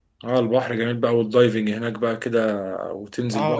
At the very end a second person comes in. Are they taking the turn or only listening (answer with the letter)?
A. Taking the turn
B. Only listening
A